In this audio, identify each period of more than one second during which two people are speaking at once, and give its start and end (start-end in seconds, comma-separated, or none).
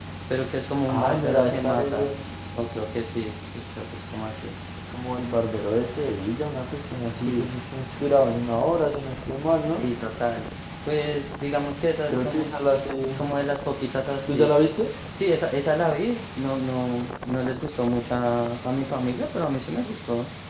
0.9-2.1